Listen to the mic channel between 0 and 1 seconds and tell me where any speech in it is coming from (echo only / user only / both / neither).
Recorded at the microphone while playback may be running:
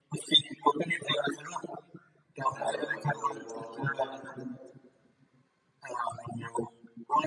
echo only